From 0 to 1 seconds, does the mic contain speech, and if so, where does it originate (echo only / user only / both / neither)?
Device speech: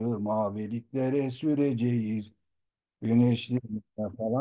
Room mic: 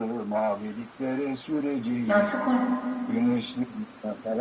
echo only